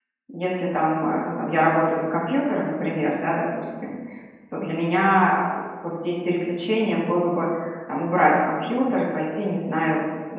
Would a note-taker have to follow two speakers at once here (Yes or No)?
No